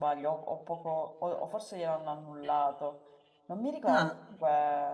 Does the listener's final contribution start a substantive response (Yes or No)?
No